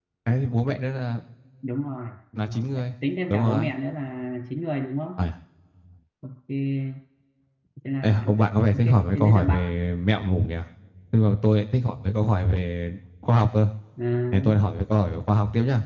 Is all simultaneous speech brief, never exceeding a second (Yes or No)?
No